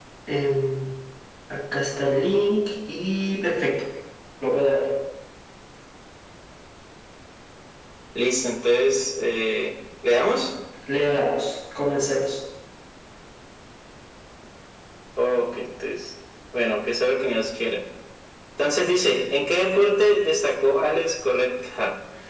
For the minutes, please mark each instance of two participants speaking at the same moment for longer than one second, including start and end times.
none

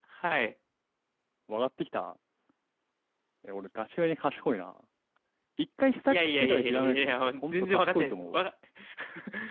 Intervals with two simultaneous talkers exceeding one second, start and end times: 6.1-8.5

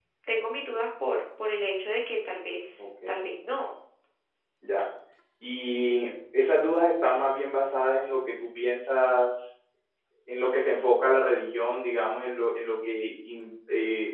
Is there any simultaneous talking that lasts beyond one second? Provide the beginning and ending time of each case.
none

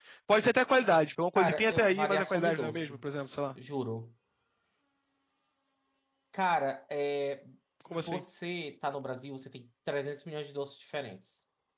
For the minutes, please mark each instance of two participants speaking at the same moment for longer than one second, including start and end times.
1.4-3.0

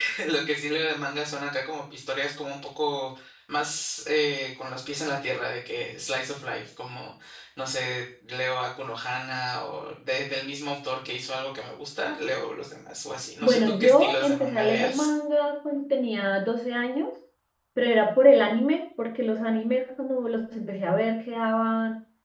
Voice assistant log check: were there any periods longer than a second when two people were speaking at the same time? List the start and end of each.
13.4-15.1

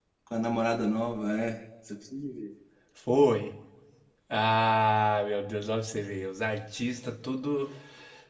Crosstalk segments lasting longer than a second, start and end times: none

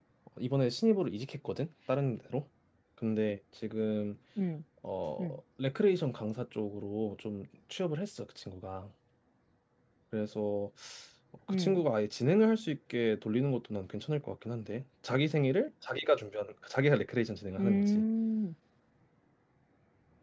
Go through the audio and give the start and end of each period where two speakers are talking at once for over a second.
none

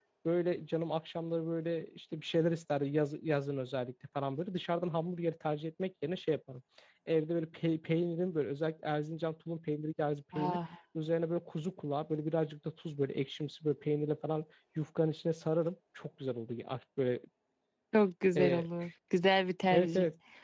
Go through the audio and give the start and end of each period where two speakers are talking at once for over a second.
none

